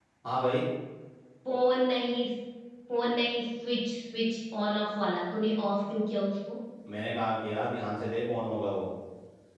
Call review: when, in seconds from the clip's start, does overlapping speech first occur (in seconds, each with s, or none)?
none